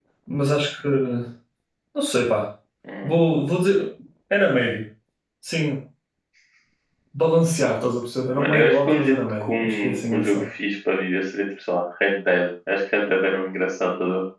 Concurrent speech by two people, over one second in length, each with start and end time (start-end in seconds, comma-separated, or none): 8.4-10.4